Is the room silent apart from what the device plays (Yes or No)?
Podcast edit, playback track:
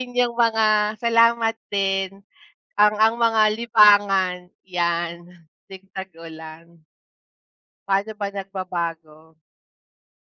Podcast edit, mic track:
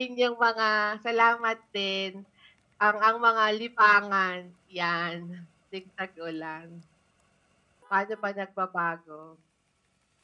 Yes